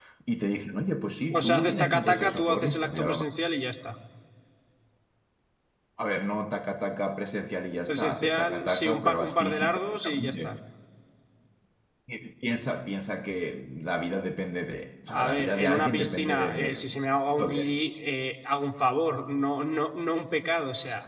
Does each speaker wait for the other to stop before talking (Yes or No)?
No